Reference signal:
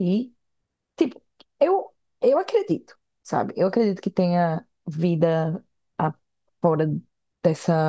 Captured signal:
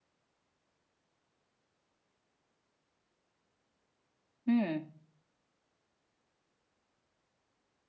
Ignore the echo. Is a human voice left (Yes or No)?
Yes